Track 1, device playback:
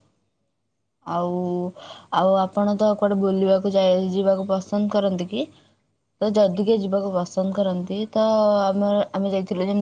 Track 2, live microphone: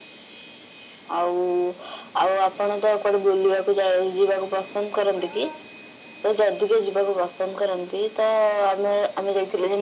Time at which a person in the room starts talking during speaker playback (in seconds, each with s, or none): none